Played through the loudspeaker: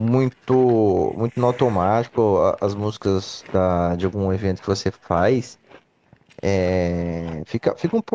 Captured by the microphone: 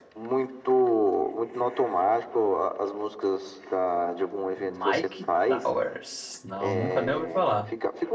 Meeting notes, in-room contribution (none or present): present